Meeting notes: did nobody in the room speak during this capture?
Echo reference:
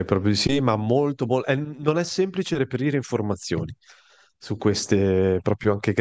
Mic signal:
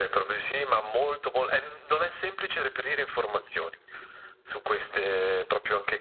Yes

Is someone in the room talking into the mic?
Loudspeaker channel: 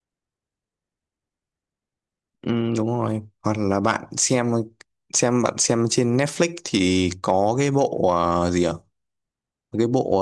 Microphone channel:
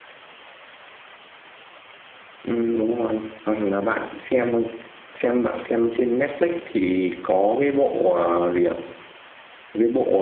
No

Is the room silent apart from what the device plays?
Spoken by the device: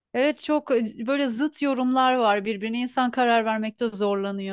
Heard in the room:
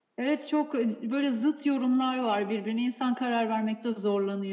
Yes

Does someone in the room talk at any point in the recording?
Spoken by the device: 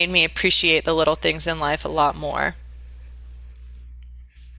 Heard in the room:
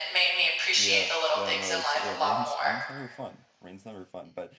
Yes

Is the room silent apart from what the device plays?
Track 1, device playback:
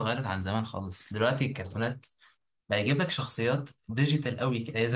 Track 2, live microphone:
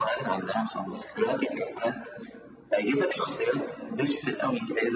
Yes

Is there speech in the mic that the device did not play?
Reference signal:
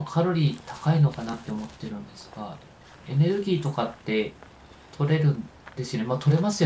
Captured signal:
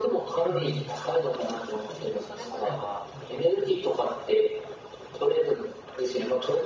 Yes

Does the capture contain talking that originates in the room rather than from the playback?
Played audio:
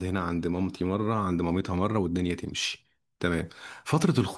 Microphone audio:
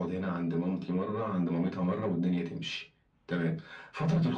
No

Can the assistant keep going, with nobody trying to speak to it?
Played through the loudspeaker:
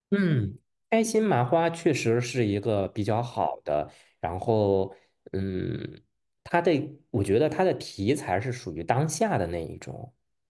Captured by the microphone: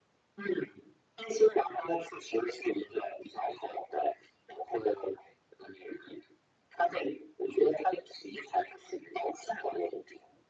Yes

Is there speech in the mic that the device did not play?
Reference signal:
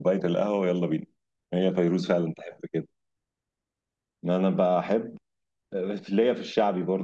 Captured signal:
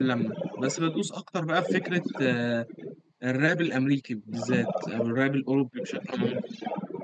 Yes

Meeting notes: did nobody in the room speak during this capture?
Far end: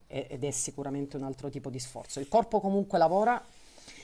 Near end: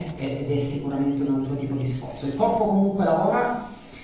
Yes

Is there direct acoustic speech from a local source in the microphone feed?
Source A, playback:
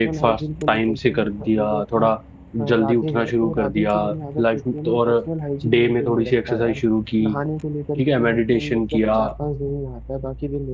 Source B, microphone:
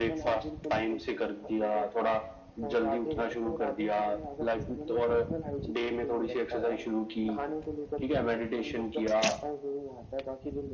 No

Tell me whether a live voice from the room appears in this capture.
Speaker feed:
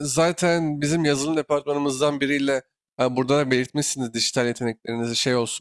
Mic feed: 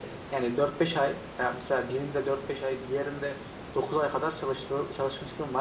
Yes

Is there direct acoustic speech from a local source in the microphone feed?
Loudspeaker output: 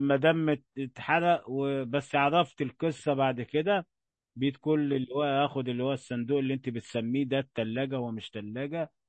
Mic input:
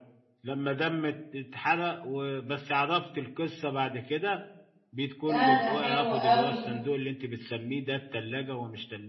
Yes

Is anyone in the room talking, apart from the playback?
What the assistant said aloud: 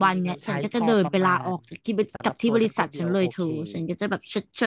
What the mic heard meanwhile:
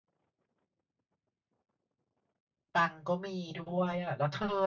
Yes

